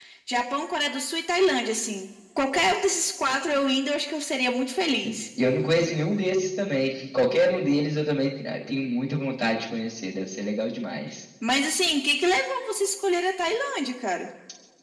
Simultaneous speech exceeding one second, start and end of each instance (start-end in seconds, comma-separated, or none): none